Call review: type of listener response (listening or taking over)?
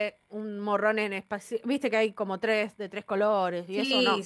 taking over